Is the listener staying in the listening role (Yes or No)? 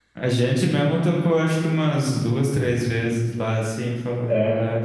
No